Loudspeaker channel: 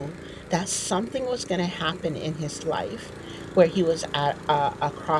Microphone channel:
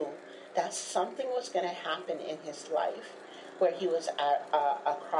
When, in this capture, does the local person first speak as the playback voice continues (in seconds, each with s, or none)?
none